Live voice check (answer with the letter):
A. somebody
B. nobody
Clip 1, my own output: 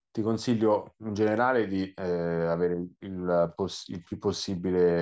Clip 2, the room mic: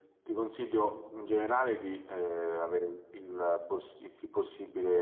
B